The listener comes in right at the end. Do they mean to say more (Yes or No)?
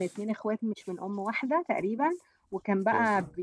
No